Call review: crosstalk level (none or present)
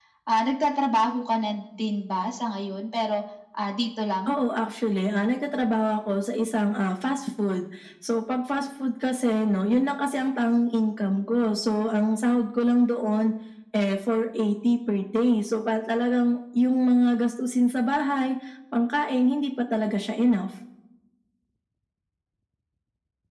none